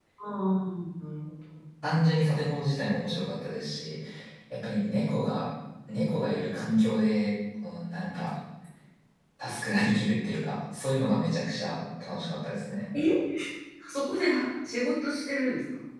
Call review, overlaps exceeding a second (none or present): none